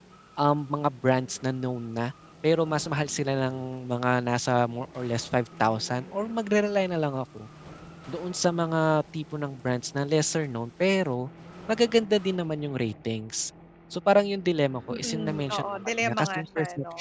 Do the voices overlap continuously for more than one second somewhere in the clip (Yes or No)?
Yes